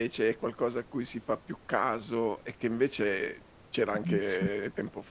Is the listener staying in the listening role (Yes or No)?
Yes